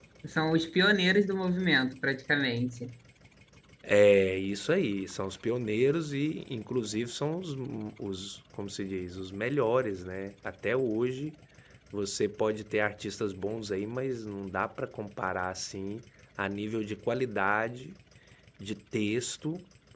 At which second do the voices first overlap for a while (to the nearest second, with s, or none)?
none